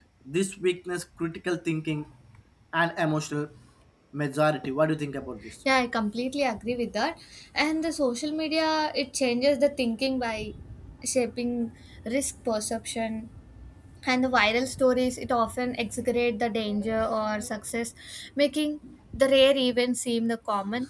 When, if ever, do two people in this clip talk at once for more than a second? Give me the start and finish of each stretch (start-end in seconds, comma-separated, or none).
none